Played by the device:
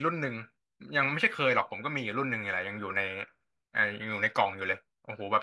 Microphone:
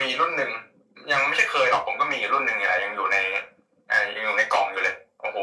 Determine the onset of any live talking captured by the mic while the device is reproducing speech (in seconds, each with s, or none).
none